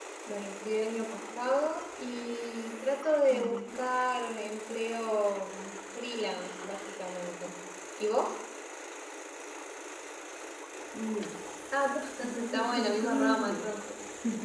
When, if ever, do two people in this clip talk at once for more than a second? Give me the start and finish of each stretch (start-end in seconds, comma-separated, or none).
12.4-13.7